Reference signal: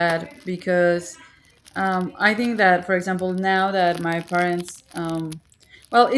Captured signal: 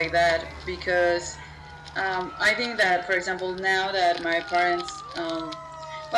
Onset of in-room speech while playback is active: none

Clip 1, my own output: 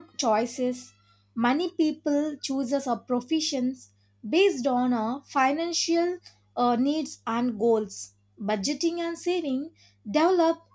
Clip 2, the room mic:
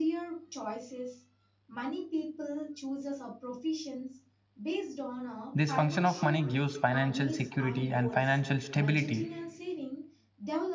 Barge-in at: 6 s

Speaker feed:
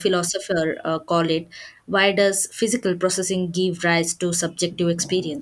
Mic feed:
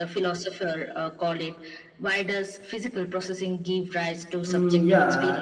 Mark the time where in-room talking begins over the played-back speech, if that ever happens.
4 s

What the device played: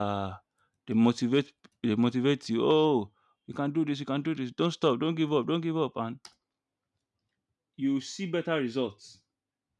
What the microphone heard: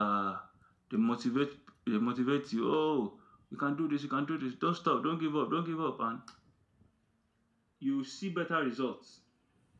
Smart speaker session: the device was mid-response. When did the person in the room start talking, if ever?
none

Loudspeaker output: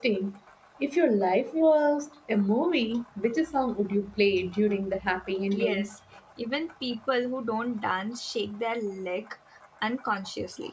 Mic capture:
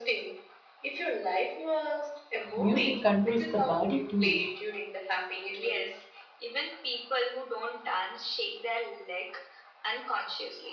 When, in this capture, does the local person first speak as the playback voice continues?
3 s

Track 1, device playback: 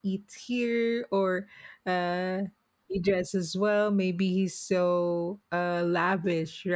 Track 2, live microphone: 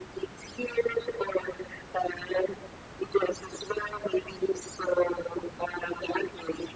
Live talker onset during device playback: none

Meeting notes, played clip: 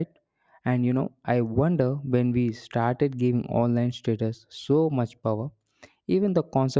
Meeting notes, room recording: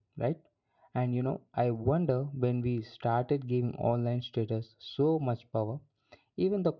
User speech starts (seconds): none

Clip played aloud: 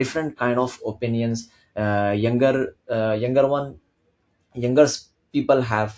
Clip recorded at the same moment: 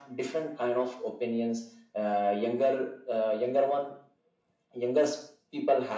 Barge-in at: none

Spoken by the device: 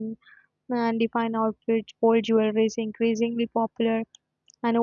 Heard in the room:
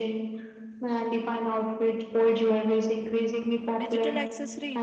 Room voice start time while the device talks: 4 s

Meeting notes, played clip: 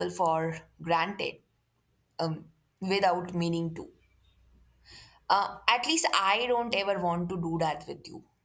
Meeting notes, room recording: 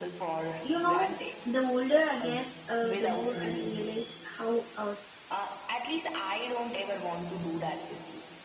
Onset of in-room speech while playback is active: 1 s

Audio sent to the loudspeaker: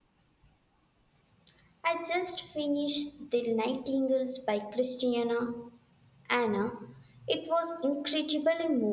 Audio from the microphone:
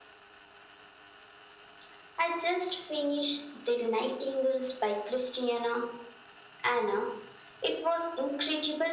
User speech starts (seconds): none

